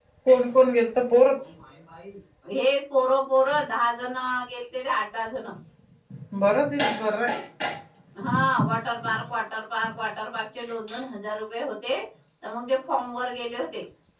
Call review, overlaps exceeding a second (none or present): none